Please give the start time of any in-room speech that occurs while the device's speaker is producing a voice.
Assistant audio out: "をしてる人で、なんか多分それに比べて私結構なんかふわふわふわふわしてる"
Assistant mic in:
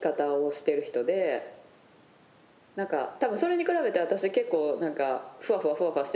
none

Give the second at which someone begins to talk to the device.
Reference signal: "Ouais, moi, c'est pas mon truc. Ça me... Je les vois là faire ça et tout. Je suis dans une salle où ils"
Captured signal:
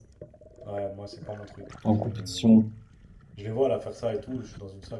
2 s

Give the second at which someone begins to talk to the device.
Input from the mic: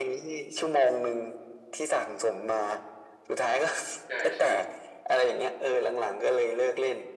4 s

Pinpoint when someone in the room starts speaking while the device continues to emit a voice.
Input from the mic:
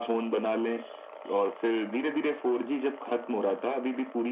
none

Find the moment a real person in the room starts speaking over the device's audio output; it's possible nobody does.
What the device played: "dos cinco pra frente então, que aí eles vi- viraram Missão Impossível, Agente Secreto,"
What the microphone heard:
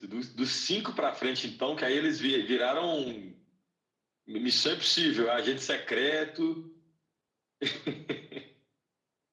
none

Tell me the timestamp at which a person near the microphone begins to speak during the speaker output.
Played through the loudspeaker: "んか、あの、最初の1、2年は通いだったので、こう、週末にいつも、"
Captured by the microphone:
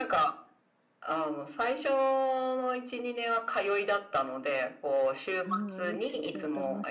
5 s

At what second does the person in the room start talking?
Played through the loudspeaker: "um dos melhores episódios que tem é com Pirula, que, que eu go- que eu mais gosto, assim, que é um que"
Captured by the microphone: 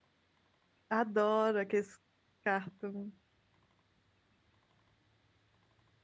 1 s

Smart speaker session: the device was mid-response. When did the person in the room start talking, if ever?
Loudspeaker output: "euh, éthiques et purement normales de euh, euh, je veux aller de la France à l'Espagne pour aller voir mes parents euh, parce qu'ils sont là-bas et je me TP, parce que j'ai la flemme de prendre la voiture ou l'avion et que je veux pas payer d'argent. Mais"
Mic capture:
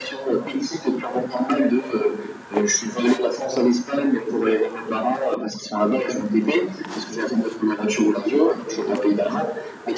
none

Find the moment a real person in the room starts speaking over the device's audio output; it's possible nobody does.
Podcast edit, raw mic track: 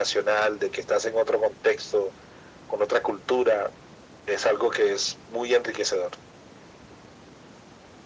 none

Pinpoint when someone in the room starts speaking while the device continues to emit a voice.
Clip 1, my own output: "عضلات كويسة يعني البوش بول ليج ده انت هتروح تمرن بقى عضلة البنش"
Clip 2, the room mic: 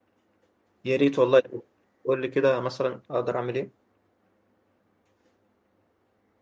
1 s

